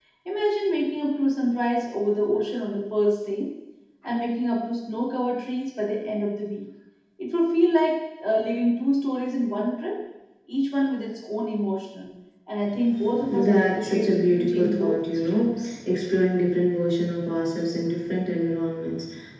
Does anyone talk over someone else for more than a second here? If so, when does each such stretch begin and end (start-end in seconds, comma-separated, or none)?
13.3-15.8